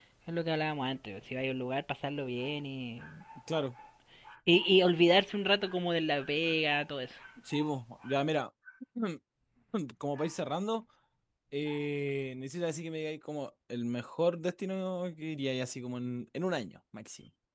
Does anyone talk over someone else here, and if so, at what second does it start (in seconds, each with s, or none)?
none